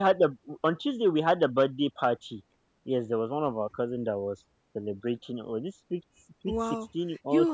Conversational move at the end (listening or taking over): taking over